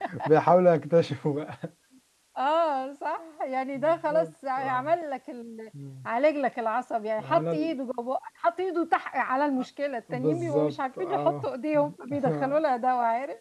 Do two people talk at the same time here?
Yes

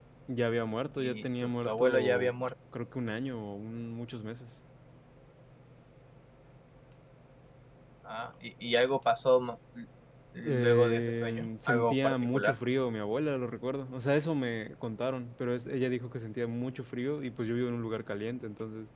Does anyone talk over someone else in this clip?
Yes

